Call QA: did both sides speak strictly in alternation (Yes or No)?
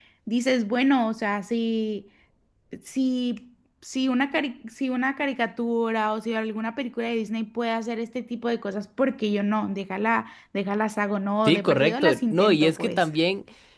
No